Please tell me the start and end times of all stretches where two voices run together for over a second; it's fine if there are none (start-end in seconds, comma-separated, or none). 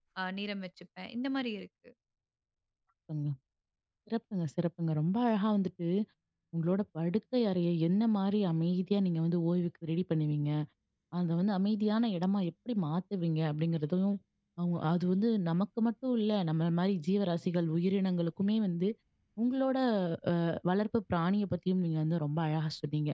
none